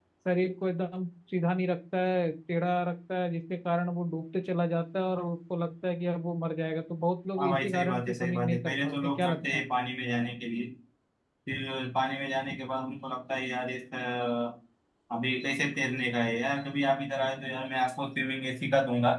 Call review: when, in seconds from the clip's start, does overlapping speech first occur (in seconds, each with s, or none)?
7.4 s